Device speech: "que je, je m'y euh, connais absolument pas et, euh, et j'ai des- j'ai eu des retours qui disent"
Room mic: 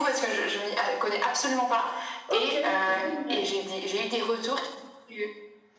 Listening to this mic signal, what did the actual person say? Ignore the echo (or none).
Ok, génial.